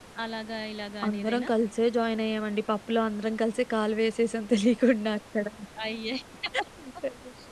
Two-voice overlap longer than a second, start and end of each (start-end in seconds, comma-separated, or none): none